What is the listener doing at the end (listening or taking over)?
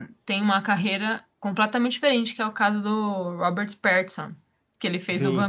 taking over